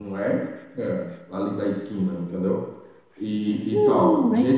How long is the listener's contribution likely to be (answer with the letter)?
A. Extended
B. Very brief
A